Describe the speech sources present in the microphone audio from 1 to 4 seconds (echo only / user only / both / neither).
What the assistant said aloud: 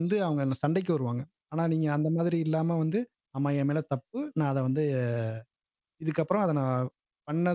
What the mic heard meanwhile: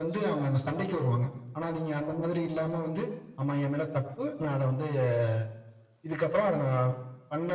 echo only